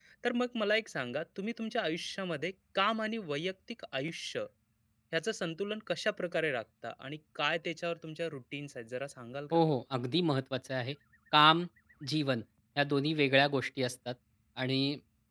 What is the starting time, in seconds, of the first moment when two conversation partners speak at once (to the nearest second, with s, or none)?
none